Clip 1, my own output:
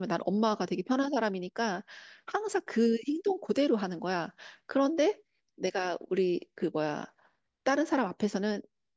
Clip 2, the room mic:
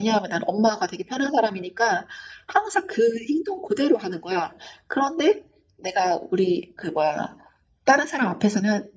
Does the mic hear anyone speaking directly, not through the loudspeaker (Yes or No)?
No